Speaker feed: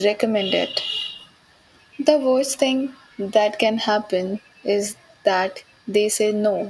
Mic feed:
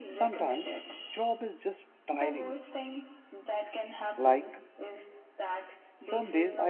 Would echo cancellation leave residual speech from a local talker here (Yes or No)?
Yes